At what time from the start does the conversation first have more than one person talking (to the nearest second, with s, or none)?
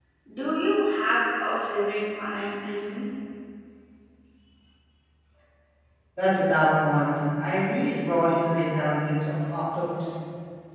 none